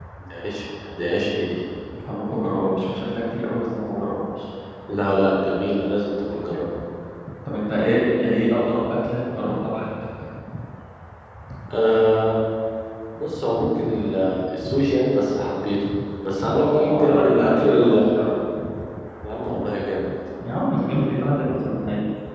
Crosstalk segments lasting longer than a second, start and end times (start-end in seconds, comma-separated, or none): 16.4-18.0